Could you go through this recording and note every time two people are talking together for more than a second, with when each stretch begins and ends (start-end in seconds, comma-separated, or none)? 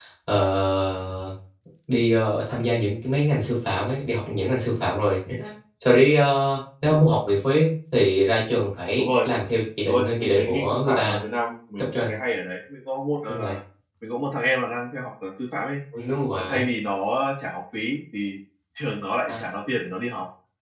9.9-11.2